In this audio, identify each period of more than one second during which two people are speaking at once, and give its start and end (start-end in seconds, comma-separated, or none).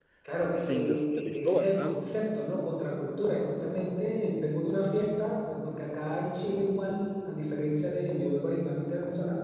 0.7-2.0